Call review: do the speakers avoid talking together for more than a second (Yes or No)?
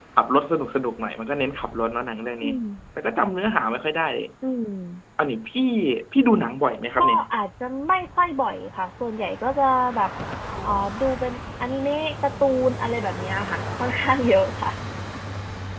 Yes